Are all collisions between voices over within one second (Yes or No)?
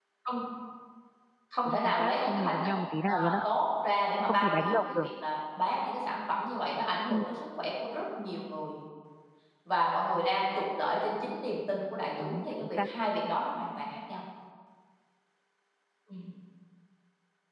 No